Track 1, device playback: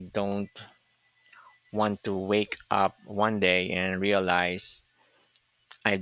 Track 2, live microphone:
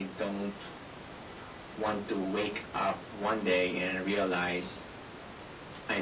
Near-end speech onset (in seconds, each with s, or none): none